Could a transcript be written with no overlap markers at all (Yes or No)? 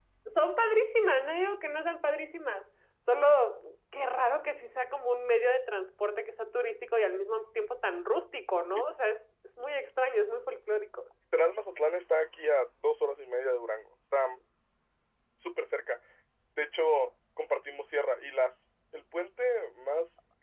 Yes